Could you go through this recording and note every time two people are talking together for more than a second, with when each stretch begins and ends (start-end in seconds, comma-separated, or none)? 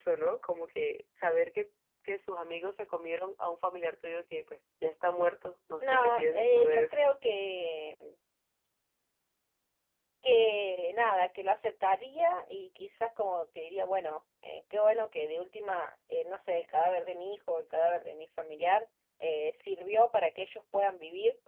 5.8-7.1